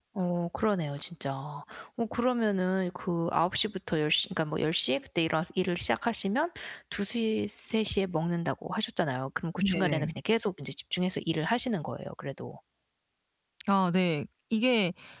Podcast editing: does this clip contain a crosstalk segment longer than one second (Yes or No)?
No